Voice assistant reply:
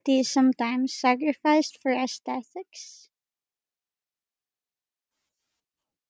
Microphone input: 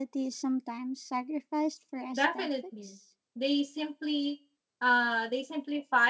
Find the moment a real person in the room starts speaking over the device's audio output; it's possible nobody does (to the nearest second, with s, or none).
2 s